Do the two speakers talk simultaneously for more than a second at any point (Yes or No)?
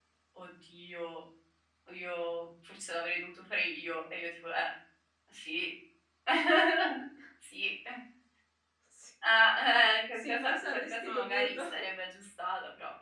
Yes